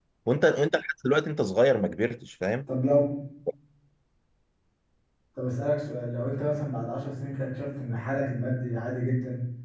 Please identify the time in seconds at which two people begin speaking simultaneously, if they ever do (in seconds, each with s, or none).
none